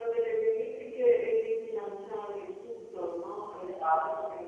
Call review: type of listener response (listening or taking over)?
taking over